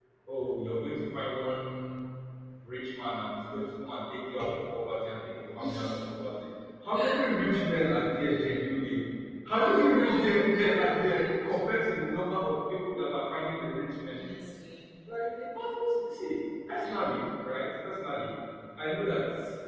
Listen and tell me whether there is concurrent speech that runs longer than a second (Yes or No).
Yes